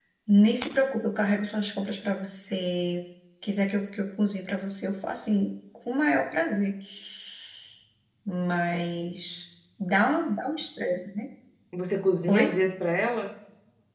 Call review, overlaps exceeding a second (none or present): none